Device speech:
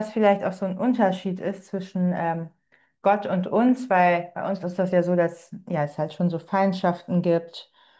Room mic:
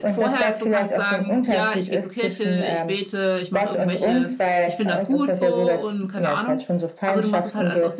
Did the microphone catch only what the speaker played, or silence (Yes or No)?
No